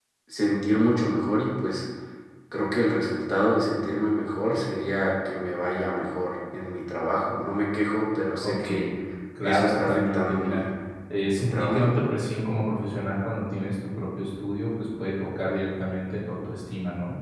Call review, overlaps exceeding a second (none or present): present